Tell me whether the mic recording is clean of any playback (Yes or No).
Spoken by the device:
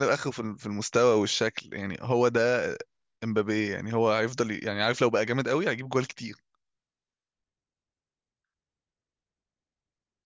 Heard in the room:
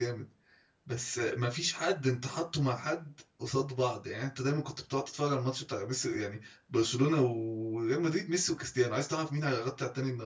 Yes